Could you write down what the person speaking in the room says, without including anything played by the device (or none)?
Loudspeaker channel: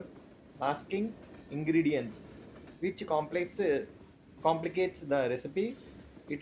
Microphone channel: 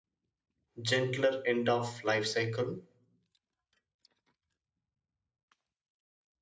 gentler end of life cycle.